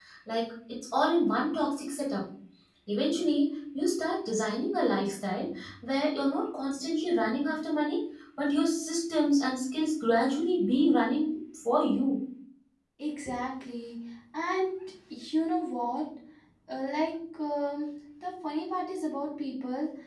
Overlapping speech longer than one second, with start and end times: none

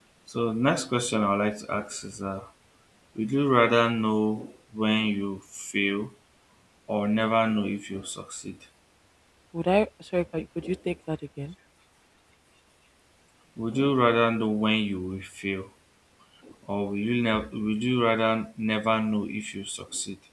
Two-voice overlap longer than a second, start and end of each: none

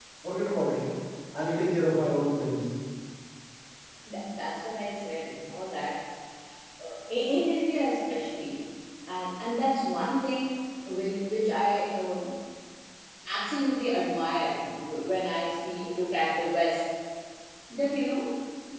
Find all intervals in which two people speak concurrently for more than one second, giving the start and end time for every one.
none

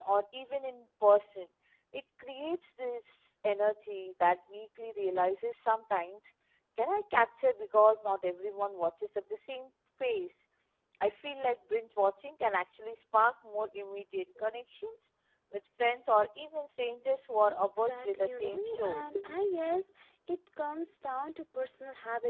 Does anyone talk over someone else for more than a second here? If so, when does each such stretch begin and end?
17.8-19.0

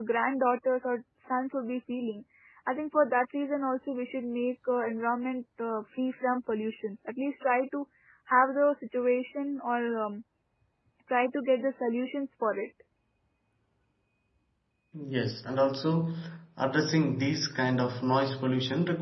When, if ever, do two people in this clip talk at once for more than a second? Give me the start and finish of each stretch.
none

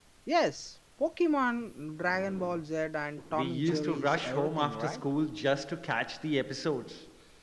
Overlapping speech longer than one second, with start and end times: 3.3-5.0

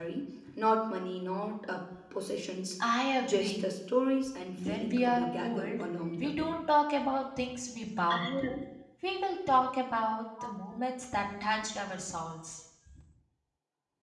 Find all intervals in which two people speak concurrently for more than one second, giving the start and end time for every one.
4.6-5.8

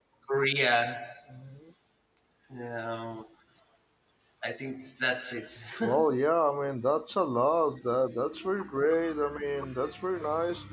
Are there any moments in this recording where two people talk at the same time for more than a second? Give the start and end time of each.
none

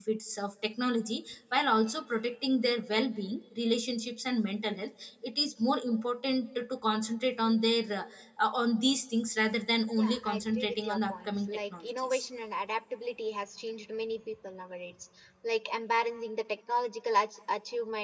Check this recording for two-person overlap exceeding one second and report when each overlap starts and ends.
10.0-12.3

